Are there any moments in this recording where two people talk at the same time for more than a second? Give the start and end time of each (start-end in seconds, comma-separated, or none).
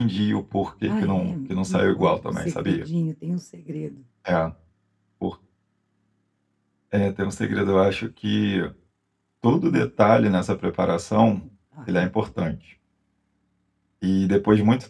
0.9-2.8